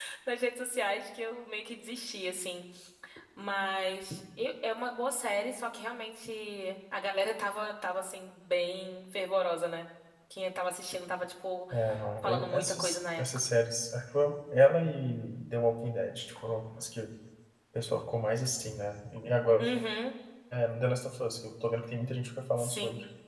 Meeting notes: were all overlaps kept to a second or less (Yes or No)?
No